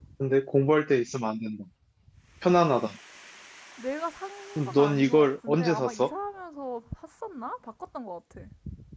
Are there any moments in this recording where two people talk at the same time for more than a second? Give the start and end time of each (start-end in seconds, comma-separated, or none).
4.6-6.1